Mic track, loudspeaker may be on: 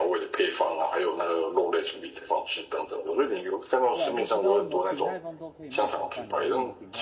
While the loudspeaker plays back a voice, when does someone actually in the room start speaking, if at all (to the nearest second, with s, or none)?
4 s